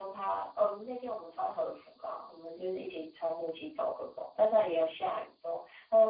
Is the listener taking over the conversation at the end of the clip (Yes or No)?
No